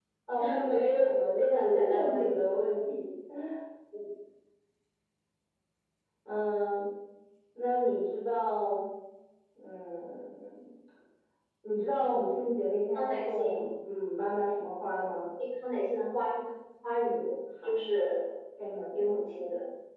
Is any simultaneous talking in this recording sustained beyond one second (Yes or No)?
Yes